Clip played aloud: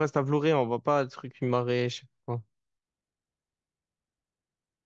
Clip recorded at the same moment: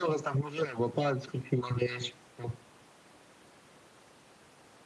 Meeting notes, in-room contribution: none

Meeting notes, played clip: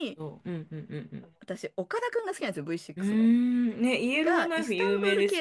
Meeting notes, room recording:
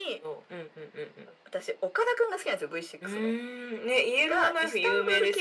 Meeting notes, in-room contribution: none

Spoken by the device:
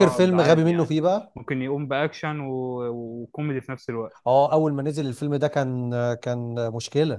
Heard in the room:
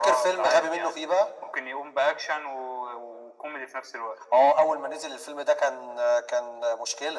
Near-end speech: none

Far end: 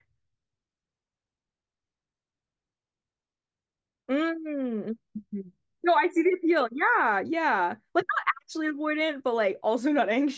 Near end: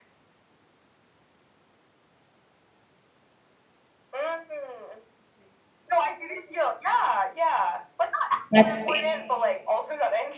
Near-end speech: present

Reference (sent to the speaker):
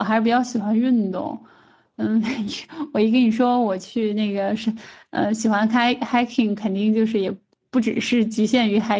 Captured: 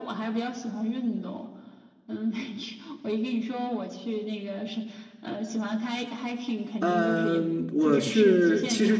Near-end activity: present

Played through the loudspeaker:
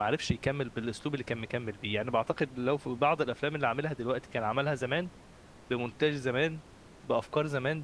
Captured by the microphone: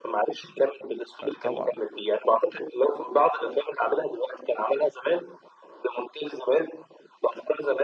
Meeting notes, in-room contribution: present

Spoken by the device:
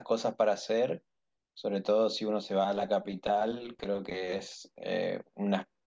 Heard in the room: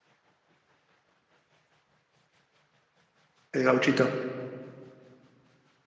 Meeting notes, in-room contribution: present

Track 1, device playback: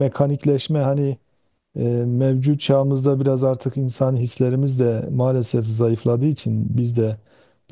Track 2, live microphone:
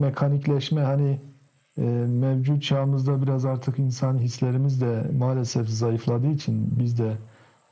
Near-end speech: none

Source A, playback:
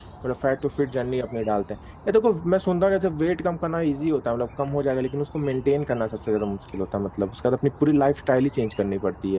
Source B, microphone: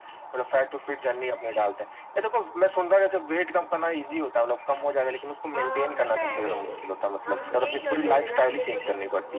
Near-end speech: present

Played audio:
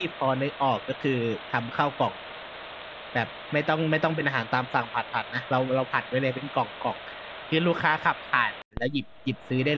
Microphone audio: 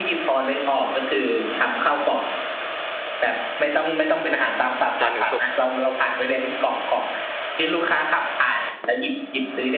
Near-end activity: present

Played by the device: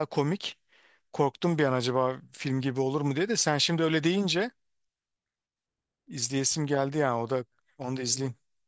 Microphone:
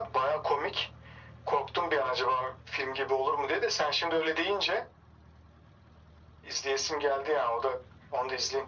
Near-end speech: none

